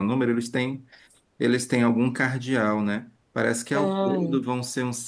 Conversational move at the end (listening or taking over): listening